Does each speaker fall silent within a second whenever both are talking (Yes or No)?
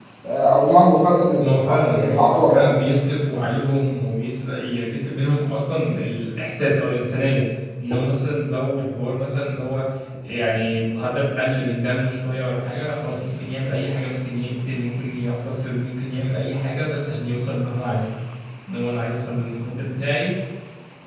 No